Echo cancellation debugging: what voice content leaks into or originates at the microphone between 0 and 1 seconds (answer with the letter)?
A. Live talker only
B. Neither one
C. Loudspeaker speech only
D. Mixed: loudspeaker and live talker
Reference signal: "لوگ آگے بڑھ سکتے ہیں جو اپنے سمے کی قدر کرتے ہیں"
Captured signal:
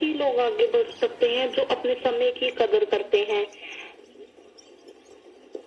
C